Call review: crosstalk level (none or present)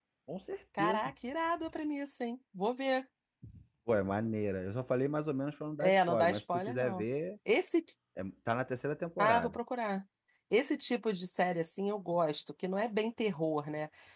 present